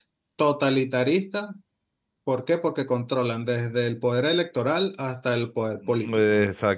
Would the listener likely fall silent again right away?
No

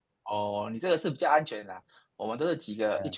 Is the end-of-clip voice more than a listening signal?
No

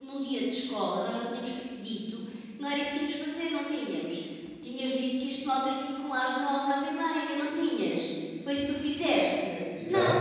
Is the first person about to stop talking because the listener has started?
Yes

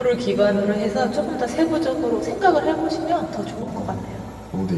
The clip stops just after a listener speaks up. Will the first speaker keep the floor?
No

